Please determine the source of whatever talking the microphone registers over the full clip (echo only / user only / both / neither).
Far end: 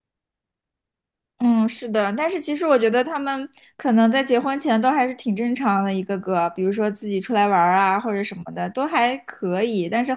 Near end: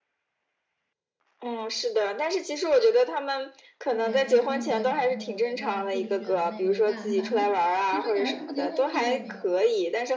both